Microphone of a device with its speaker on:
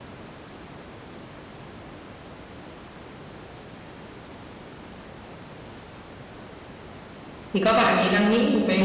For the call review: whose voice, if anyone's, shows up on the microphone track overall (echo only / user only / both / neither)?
user only